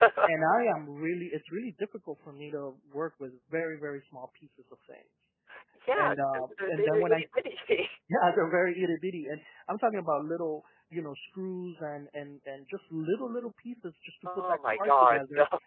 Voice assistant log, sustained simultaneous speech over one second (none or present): present